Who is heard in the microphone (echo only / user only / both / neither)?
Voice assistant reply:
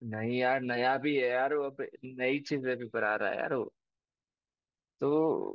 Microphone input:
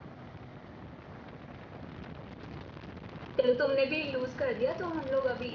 user only